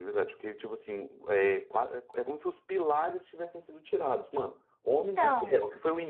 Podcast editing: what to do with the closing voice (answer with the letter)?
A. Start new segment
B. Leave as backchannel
B